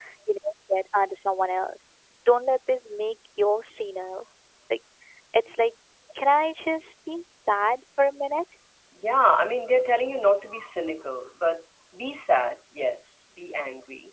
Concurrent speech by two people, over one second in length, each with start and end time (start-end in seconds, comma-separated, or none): none